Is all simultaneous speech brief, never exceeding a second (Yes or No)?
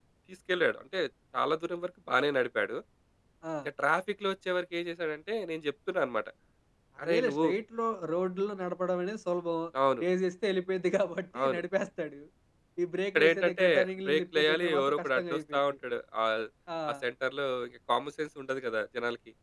No